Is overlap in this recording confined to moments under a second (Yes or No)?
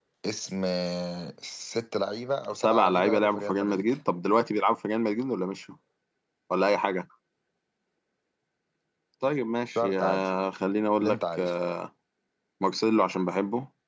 No